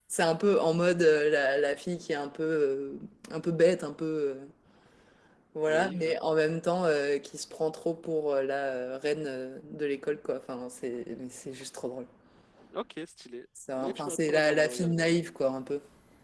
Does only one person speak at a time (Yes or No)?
No